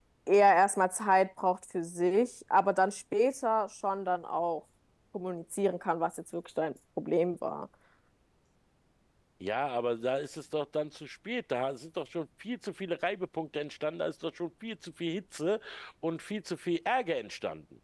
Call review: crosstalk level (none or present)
none